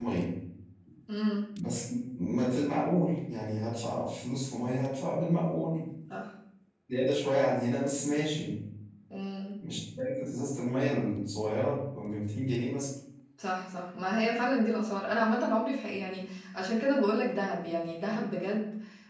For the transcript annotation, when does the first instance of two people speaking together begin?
none

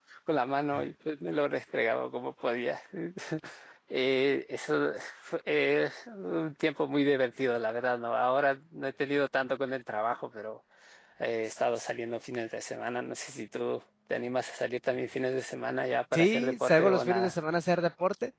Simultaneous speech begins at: 16 s

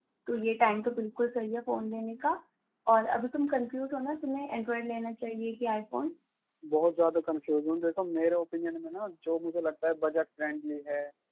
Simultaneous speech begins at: none

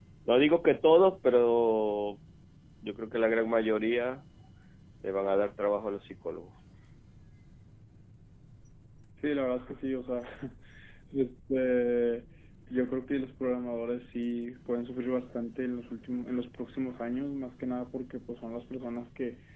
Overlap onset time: none

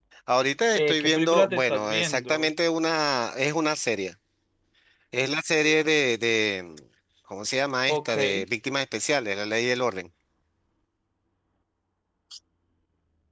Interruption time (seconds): 1 s

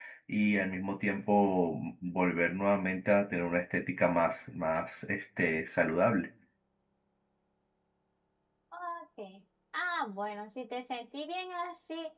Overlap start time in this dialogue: none

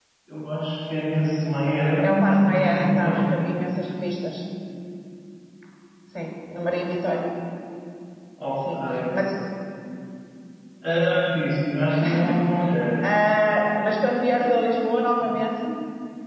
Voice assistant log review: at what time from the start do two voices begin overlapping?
2 s

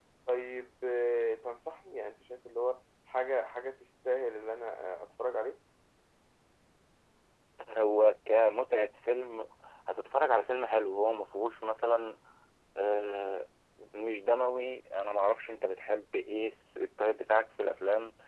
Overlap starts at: none

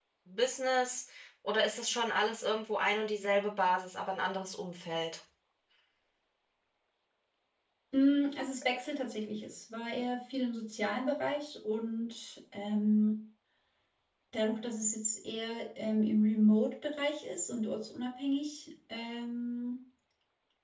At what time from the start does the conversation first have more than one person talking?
none

